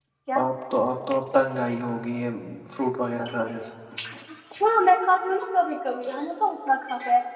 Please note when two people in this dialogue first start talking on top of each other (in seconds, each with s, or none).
none